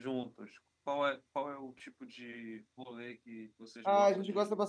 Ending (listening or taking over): taking over